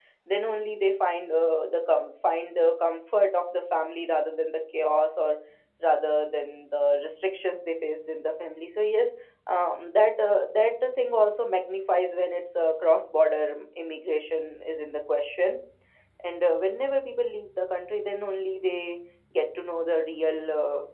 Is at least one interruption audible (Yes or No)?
No